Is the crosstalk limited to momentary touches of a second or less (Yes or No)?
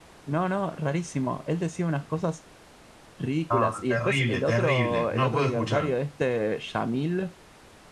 No